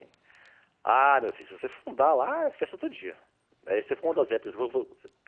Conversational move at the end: listening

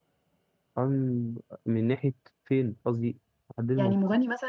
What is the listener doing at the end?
taking over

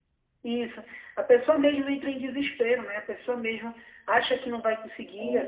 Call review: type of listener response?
listening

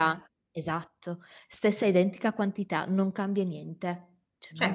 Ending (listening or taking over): taking over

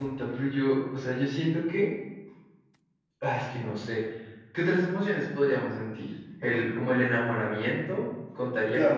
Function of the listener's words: taking over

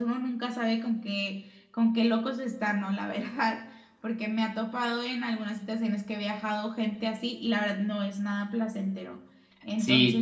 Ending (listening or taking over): taking over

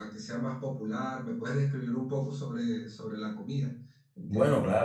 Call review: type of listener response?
taking over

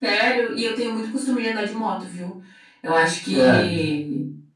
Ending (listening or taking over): listening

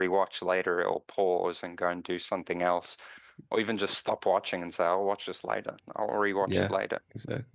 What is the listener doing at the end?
taking over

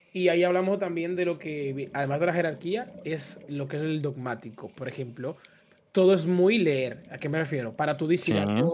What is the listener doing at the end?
listening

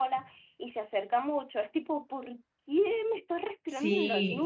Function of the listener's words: taking over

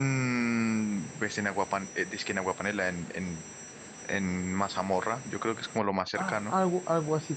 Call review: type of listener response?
taking over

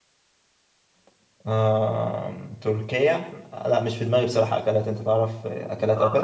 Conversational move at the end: taking over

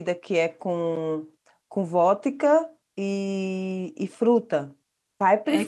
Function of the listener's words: taking over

